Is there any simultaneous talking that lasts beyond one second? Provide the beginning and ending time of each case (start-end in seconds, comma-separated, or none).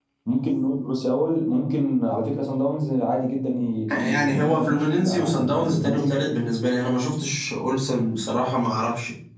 4.0-6.2